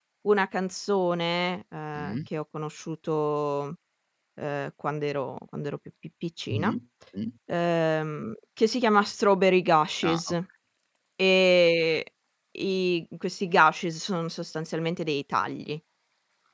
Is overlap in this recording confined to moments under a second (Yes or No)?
Yes